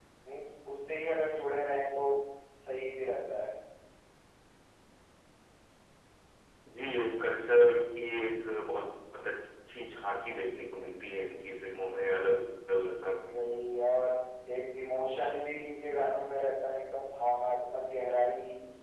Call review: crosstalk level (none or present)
none